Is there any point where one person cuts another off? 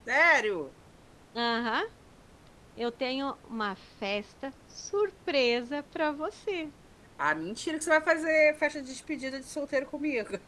No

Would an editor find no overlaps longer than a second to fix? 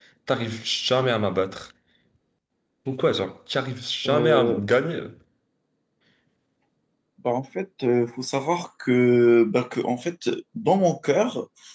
Yes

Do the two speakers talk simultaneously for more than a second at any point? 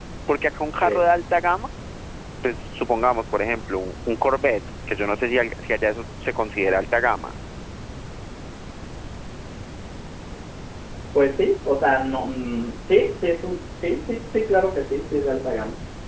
No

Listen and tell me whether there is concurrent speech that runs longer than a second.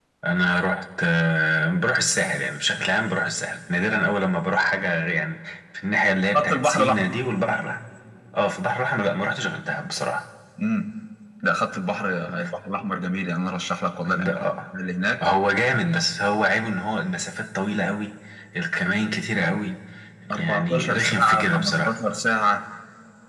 Yes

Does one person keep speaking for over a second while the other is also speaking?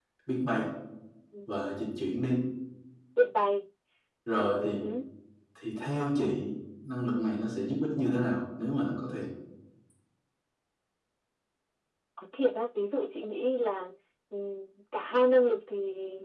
No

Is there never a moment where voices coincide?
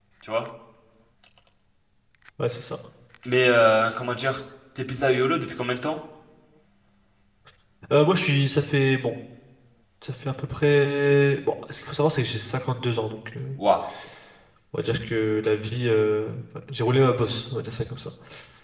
Yes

